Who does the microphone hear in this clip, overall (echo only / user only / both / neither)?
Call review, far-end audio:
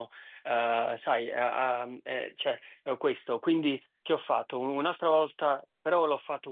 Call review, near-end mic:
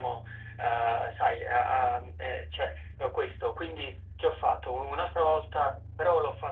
echo only